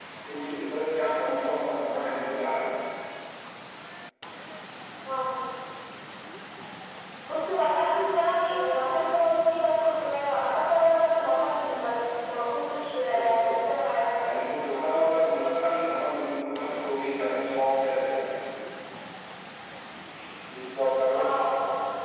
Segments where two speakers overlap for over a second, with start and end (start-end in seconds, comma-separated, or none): none